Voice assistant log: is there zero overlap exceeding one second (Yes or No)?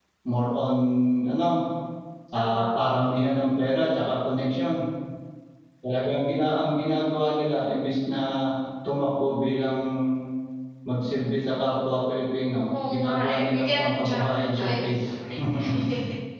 No